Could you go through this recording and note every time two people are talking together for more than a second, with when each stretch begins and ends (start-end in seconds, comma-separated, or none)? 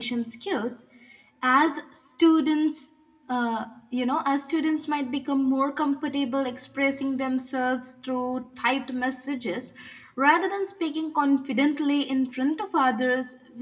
none